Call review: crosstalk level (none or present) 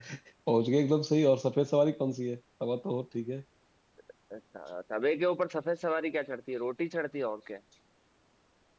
none